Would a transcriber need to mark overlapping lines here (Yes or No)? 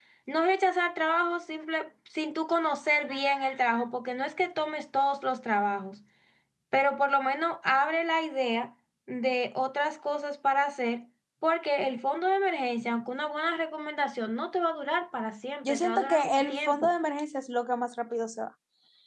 Yes